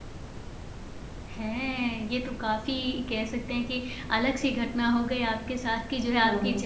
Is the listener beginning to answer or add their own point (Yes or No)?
No